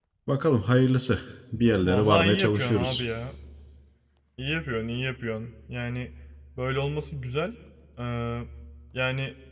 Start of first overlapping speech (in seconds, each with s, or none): 1.8 s